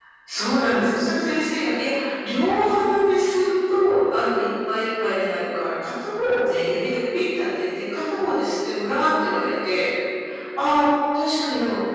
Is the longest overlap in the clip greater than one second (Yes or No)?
No